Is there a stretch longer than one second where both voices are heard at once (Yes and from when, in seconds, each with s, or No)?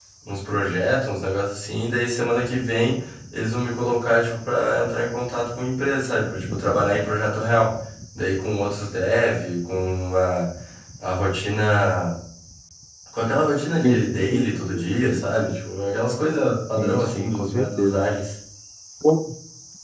Yes, from 13.8 s